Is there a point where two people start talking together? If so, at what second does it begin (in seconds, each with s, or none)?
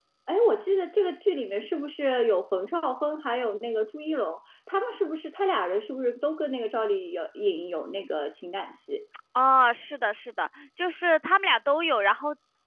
none